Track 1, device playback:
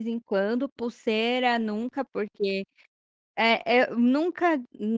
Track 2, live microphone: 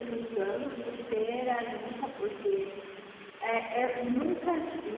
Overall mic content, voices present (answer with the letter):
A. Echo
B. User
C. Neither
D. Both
A